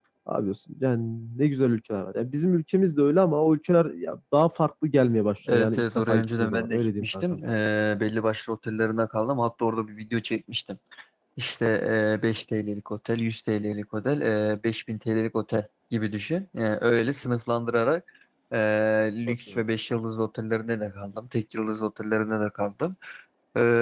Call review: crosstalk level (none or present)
present